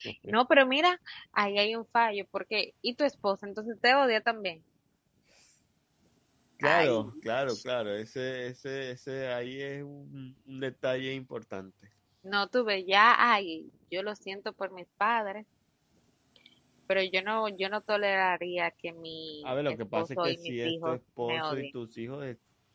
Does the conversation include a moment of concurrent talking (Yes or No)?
Yes